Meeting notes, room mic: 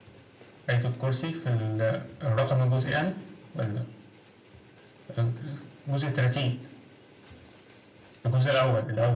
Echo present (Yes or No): Yes